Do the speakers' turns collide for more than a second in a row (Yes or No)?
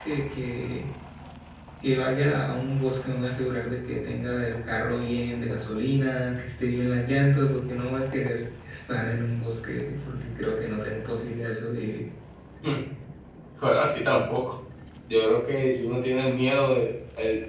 No